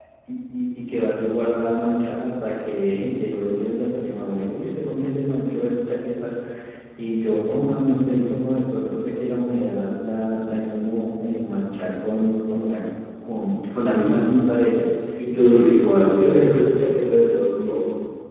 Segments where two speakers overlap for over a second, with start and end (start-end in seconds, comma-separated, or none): 15.3-16.5